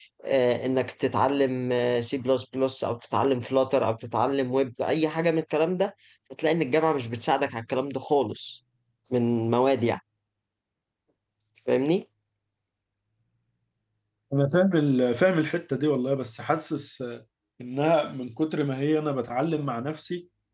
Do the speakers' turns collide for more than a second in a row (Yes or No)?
No